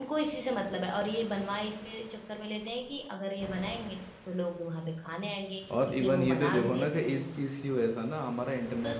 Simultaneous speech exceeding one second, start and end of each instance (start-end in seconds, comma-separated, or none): 5.9-7.3